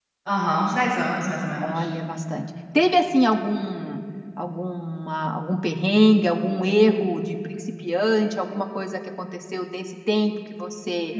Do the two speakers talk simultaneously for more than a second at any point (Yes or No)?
No